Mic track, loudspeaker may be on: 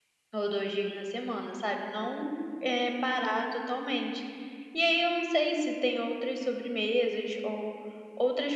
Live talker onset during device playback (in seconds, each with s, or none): none